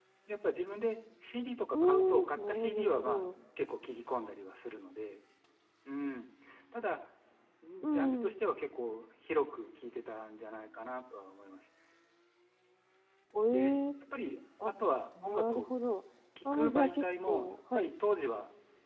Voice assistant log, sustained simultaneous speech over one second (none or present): present